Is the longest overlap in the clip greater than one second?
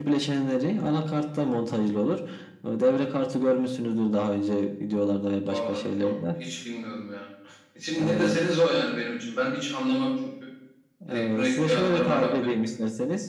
Yes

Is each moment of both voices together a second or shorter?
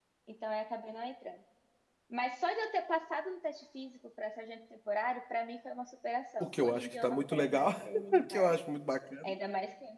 No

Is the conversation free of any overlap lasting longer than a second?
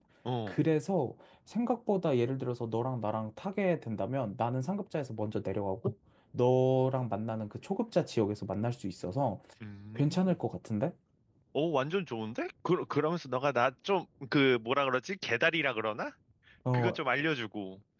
Yes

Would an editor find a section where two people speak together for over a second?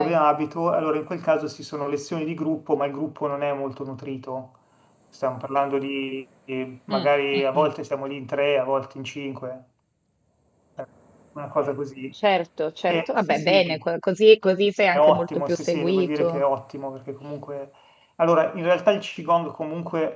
Yes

